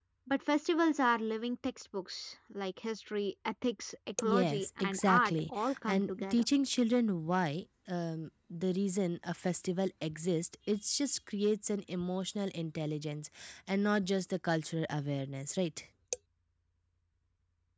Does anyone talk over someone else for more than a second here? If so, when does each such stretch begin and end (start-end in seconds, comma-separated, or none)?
4.2-6.4